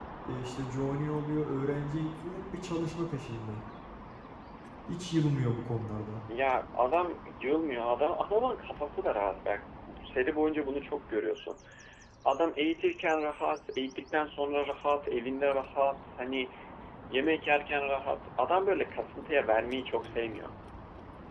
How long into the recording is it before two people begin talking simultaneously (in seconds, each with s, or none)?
none